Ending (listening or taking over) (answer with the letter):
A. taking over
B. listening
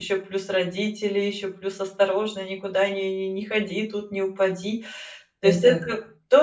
B